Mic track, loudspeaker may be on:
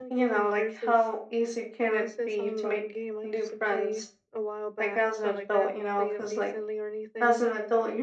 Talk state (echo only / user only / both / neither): both